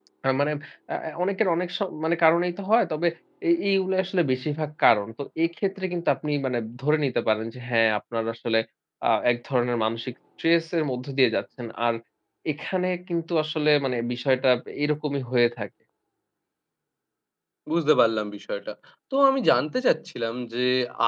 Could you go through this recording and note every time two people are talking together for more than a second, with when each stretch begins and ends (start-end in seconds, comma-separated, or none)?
none